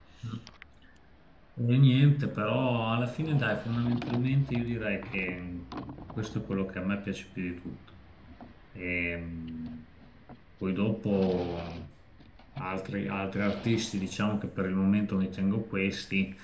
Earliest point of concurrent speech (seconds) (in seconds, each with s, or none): none